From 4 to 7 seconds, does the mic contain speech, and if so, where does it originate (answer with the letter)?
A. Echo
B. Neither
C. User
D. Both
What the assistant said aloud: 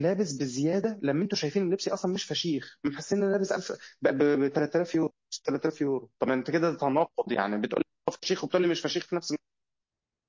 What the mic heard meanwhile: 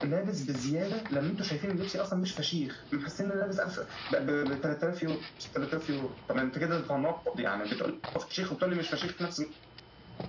A